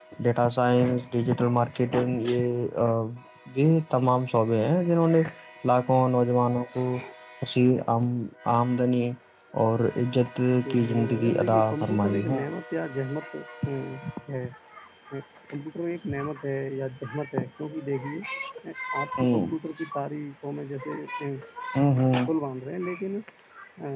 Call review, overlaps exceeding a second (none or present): present